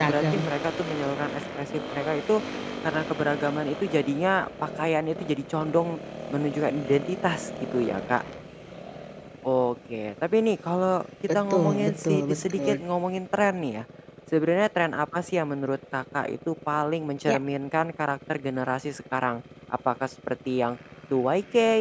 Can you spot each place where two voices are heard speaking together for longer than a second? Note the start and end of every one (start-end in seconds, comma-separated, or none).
11.3-12.7